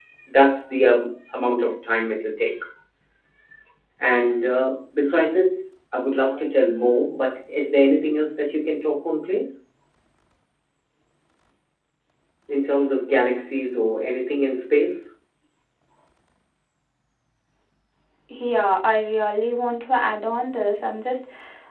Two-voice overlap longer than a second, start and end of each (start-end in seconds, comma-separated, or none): none